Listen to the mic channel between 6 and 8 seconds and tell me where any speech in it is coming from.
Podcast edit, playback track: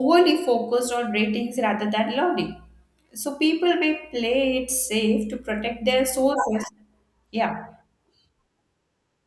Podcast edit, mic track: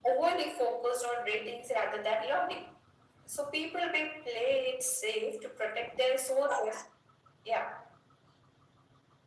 echo only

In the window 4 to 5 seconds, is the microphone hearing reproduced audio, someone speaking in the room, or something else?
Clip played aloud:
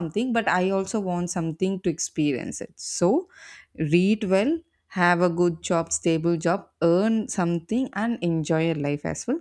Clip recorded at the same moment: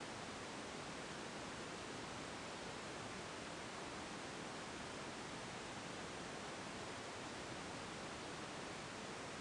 neither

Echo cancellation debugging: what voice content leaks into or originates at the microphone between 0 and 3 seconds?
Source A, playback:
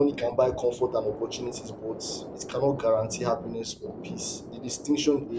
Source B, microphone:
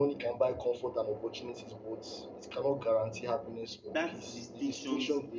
echo only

